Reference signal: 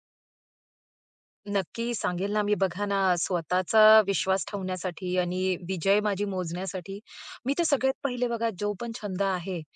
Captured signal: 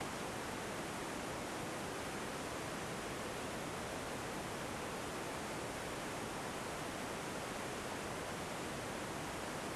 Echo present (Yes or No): No